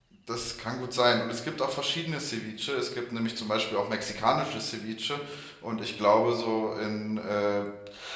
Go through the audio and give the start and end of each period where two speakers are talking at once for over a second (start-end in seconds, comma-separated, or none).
none